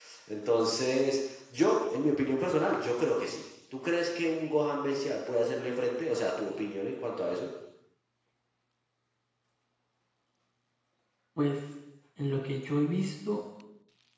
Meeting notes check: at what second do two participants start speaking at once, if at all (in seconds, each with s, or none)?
none